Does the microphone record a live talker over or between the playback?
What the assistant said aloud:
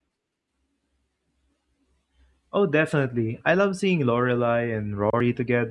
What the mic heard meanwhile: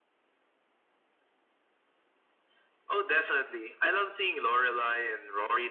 No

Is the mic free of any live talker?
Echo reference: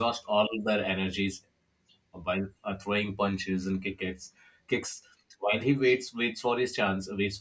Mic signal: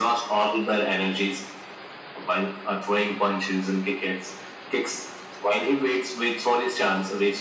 Yes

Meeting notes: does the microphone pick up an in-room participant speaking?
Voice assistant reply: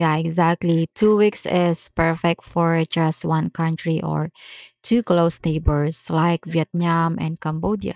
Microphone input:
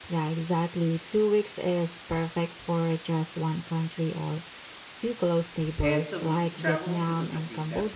Yes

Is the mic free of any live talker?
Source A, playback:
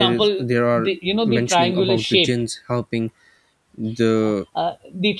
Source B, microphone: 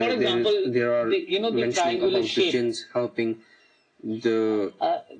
Yes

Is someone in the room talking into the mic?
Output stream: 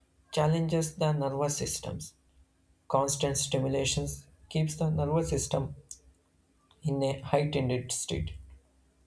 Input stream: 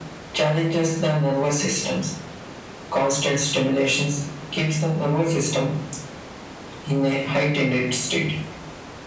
No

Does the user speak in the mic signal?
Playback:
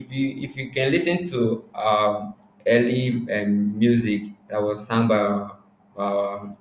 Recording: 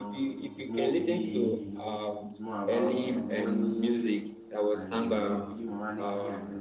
Yes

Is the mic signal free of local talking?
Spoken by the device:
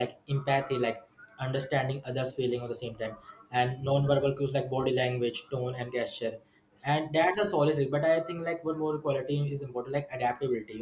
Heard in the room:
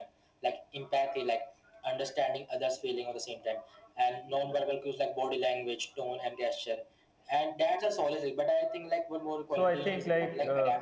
No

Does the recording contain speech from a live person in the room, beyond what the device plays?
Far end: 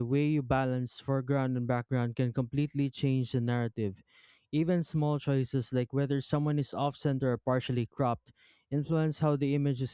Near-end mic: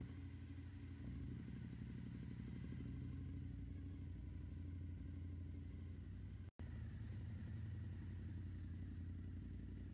No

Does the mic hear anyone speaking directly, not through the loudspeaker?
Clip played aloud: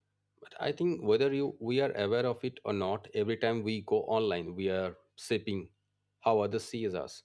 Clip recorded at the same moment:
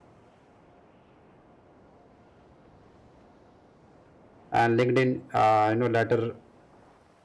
Yes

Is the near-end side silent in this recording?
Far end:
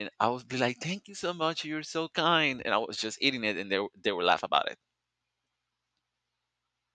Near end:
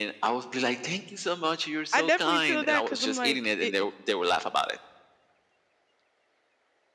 No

